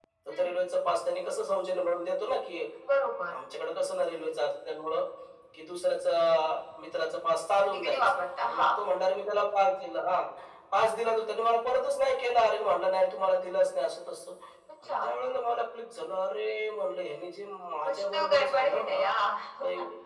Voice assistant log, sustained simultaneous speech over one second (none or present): present